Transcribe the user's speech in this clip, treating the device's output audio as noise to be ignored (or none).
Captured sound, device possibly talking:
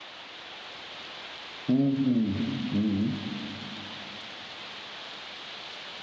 Mhm. Mhm.